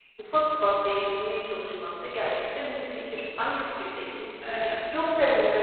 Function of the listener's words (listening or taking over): taking over